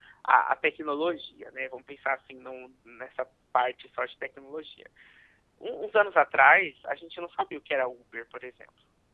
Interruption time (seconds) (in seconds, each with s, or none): none